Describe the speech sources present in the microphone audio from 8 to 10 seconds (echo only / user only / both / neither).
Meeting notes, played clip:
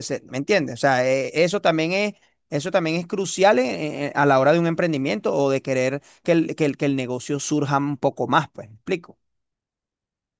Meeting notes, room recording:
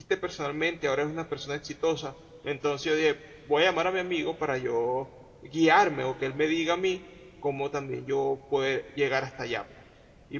user only